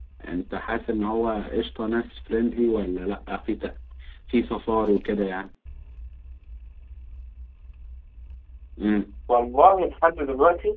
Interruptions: none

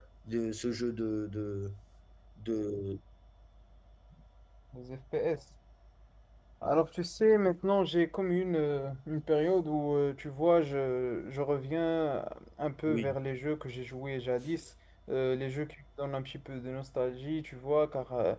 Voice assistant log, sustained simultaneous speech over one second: none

